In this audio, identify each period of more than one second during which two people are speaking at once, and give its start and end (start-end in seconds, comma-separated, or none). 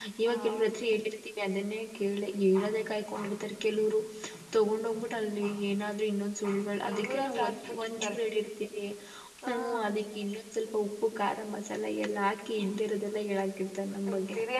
6.9-8.2